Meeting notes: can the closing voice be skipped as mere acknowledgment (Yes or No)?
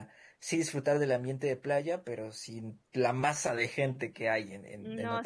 No